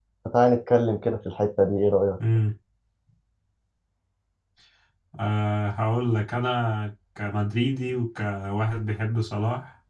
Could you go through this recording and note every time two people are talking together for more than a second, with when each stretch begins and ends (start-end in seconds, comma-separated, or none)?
none